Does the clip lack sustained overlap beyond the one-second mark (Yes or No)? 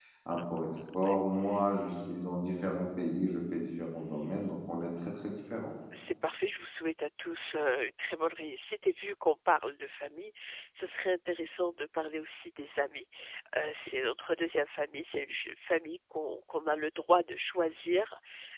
Yes